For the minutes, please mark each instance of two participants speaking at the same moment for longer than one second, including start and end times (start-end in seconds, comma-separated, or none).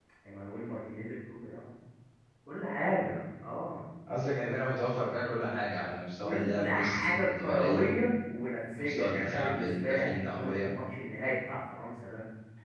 6.2-8.0, 8.8-10.7